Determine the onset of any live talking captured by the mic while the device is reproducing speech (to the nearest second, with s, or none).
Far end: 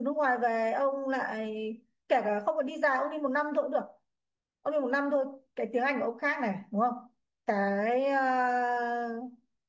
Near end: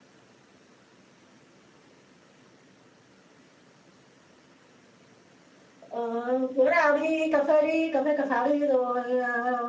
6 s